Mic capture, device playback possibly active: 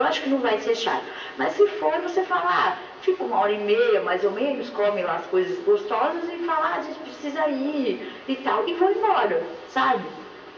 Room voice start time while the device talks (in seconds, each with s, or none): none